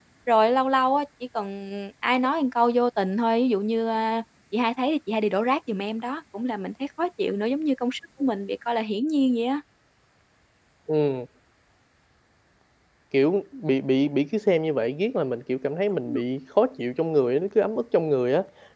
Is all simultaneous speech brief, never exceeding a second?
Yes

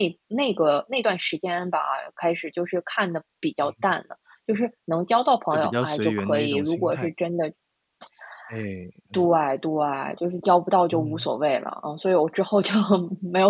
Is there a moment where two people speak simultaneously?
Yes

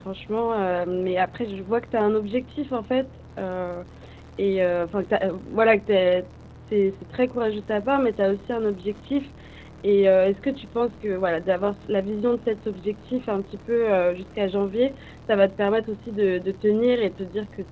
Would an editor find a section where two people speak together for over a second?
No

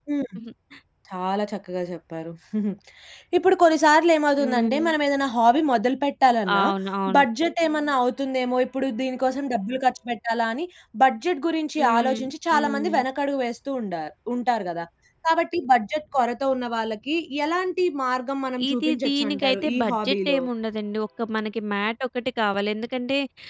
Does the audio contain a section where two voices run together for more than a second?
Yes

